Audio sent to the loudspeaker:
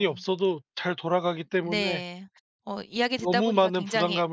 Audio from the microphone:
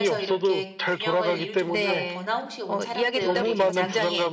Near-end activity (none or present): present